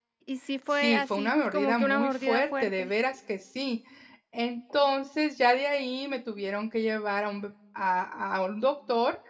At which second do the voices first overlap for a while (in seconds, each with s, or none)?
0.8 s